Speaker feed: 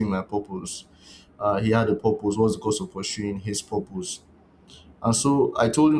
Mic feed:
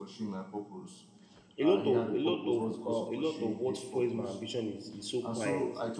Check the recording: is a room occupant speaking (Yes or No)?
Yes